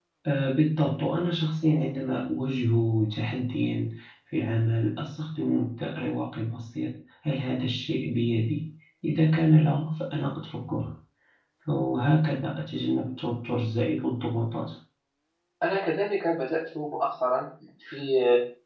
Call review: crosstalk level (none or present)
none